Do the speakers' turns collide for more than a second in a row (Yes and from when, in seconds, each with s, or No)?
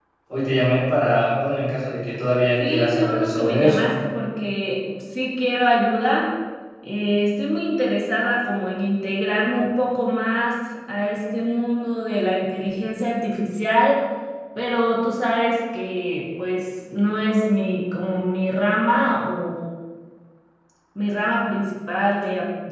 Yes, from 2.6 s